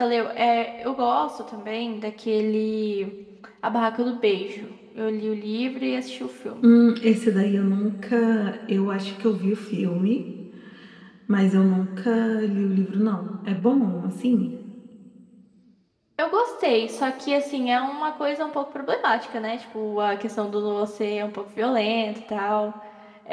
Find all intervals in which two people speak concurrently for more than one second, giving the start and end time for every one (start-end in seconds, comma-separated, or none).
none